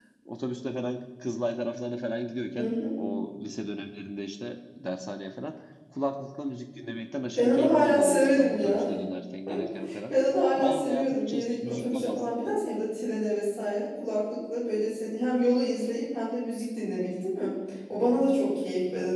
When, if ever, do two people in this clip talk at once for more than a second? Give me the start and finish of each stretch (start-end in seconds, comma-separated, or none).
7.4-8.8, 10.6-12.4